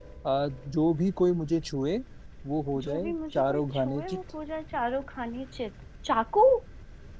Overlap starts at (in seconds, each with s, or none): 2.8 s